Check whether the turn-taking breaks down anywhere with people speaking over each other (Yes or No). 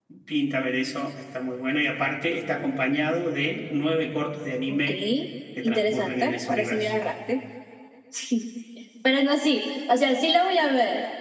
Yes